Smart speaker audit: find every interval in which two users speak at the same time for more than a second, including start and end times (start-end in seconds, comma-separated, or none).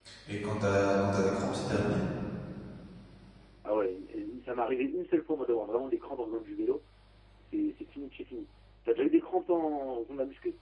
none